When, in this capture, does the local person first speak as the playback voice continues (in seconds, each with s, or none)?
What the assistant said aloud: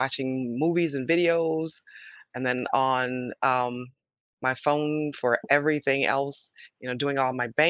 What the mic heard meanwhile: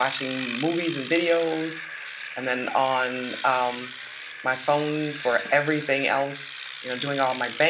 none